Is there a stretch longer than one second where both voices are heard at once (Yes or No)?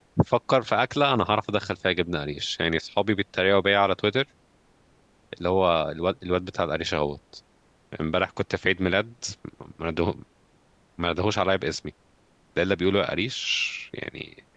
No